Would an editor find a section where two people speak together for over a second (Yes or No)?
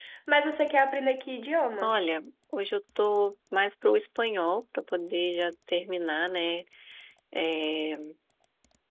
No